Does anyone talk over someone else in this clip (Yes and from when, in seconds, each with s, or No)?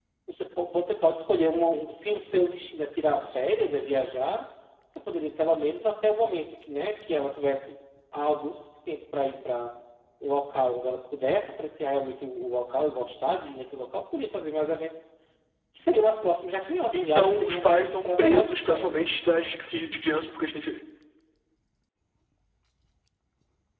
Yes, from 16.9 s